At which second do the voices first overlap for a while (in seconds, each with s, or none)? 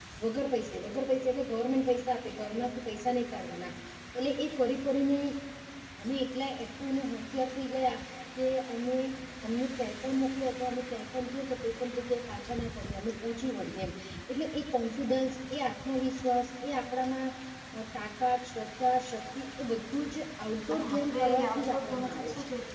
20.7 s